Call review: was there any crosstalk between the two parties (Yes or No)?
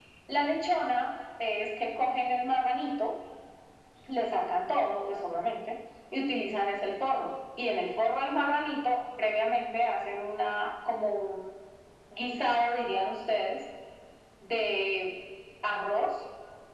No